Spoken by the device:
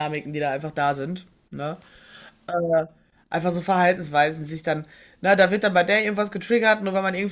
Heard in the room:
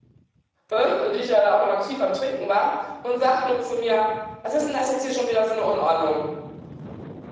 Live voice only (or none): äh, die ich ja da auch noch aktiv am Trinken war, und sagt nur zu mir, was ist denn das jetzt hier schon wieder für eine Unordnung?